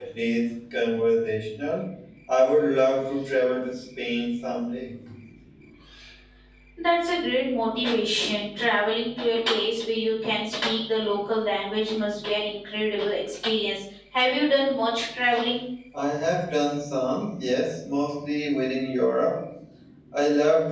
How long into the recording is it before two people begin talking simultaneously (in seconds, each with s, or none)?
none